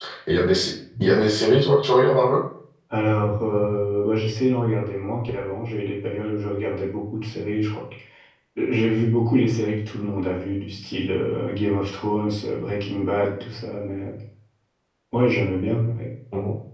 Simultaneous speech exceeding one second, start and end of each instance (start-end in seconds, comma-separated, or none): none